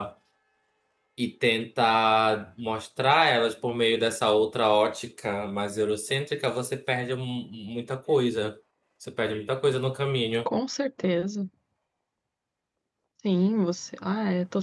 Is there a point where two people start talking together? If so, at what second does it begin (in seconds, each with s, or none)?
none